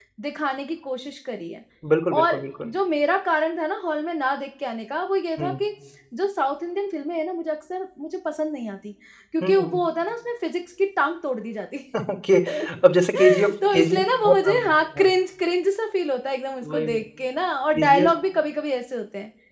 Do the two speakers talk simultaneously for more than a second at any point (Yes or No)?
Yes